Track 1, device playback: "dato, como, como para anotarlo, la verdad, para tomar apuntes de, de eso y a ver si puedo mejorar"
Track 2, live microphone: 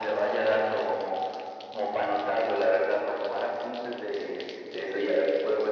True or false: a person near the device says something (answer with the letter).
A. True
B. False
B